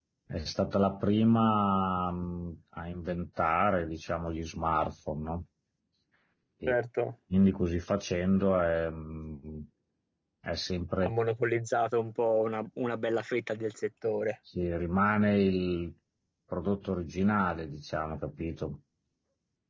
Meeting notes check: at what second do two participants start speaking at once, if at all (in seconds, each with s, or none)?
none